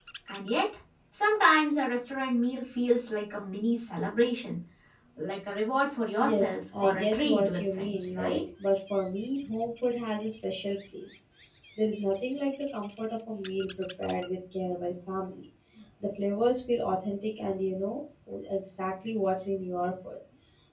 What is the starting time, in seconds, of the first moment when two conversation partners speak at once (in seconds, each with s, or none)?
6.2 s